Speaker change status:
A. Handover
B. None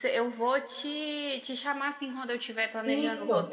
B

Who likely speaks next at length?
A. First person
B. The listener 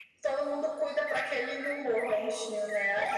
B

